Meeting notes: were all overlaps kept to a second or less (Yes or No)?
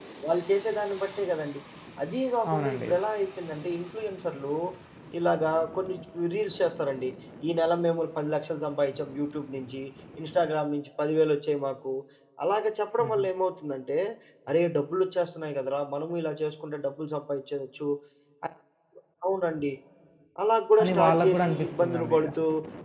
No